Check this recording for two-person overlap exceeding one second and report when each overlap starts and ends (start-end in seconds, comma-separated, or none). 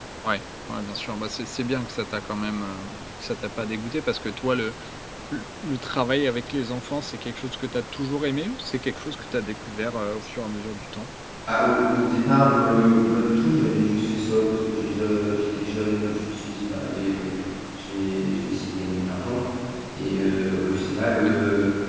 none